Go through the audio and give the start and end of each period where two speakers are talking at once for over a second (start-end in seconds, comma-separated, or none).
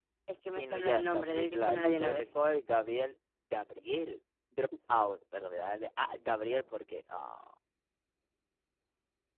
0.6-2.3